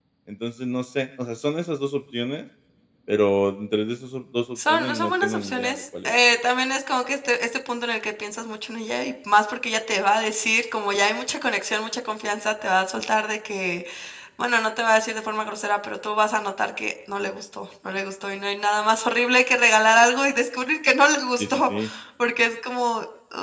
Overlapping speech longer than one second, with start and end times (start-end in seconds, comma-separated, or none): 4.7-6.1